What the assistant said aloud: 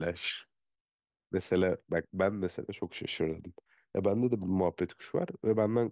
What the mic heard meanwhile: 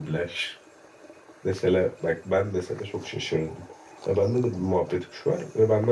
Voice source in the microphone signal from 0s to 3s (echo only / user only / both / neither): echo only